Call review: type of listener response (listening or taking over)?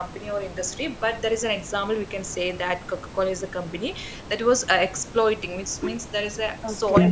taking over